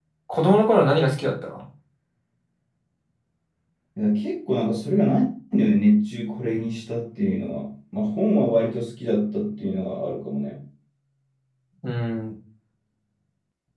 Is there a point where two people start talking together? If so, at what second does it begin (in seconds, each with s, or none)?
none